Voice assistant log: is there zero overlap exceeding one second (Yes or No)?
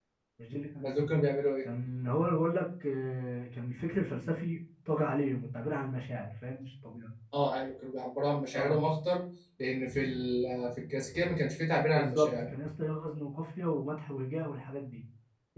Yes